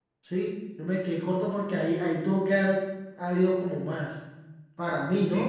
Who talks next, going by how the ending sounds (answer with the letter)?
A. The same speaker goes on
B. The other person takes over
B